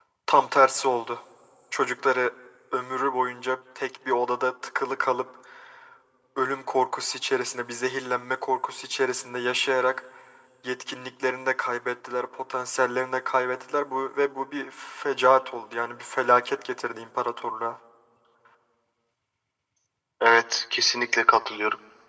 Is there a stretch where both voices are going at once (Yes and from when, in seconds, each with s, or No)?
No